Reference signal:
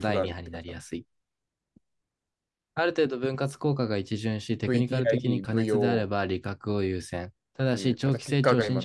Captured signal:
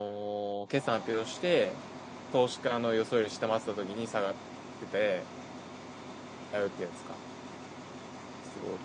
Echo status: none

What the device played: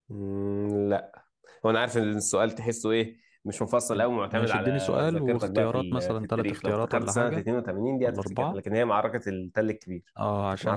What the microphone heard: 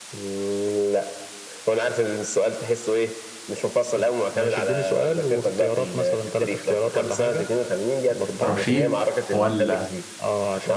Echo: present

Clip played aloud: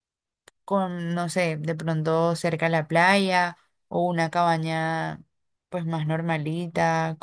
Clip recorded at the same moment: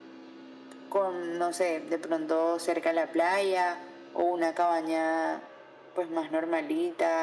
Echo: present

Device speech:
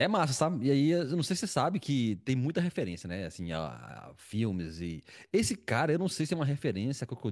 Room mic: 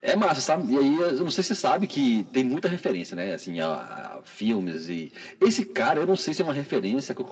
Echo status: present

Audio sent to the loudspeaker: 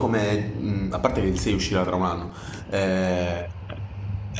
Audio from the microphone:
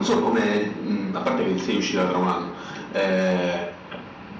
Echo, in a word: present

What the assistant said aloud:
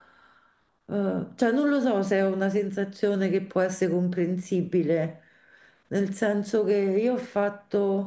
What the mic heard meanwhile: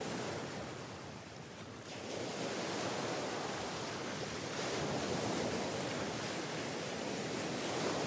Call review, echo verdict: none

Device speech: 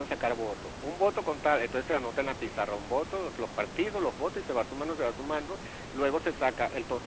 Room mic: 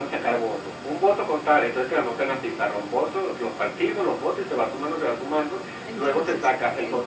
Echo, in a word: present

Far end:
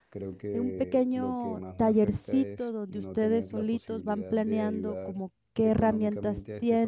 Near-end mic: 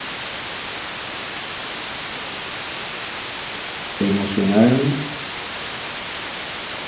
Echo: none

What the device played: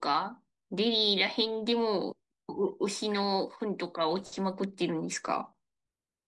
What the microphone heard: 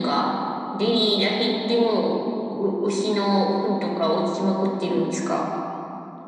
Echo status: present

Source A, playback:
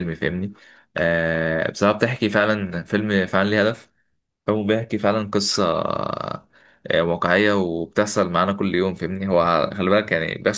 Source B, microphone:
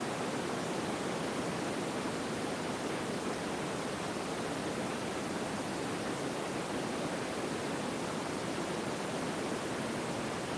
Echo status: none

